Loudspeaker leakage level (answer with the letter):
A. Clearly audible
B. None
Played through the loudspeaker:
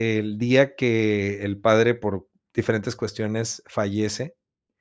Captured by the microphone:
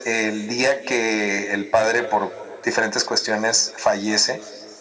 A